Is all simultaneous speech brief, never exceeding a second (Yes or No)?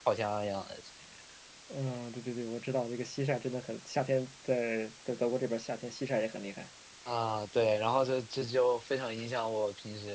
Yes